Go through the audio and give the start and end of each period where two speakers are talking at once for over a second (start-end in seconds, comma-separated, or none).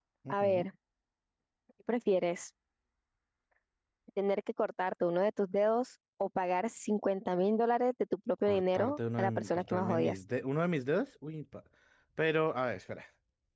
8.4-10.2